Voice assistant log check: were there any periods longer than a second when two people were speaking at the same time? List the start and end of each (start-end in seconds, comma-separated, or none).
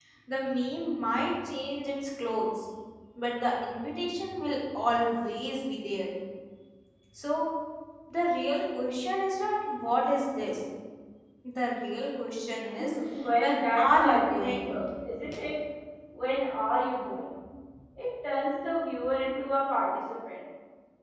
13.4-14.7